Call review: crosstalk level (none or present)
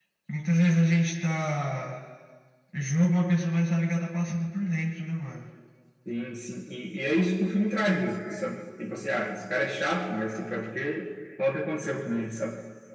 none